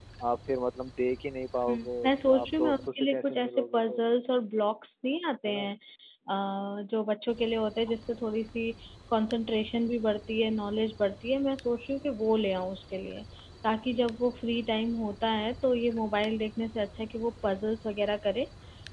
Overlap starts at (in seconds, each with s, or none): 1.7 s